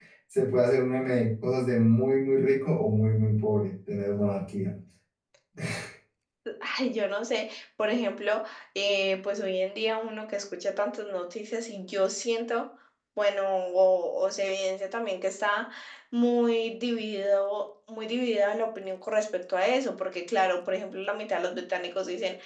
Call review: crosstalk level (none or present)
none